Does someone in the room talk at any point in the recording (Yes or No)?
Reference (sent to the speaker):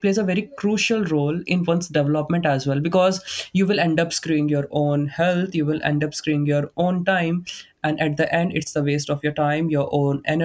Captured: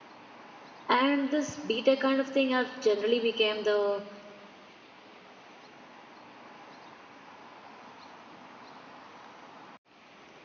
Yes